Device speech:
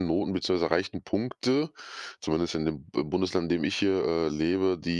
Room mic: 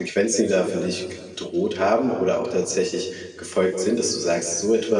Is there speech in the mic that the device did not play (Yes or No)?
Yes